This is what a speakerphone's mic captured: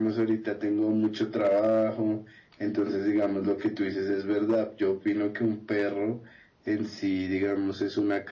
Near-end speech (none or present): none